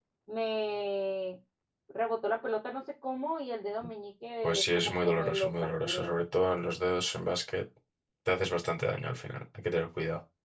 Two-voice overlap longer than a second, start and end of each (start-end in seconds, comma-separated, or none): 4.4-6.1